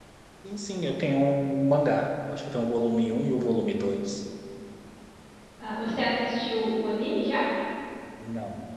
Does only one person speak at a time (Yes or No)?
Yes